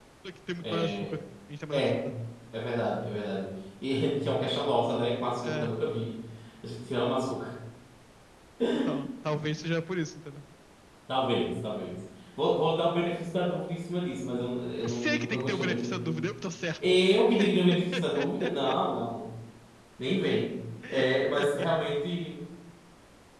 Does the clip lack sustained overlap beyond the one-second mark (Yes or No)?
No